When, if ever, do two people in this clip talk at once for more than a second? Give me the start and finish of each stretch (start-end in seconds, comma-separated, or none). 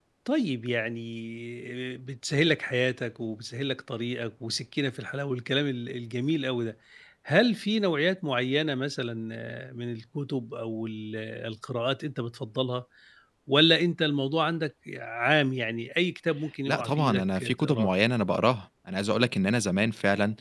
16.7-17.9